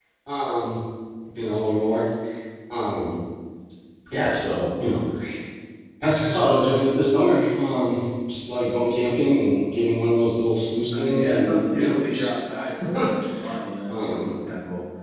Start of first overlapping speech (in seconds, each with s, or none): 10.9 s